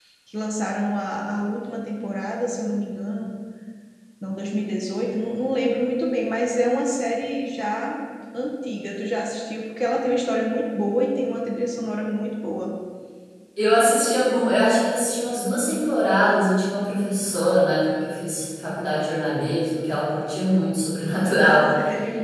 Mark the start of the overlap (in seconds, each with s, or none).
none